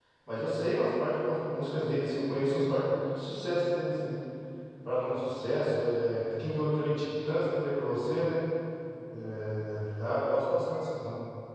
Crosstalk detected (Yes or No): No